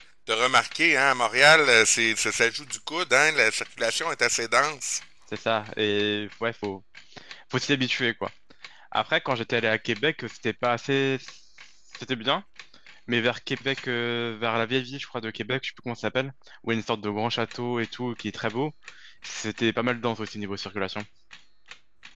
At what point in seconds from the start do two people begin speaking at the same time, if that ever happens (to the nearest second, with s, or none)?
none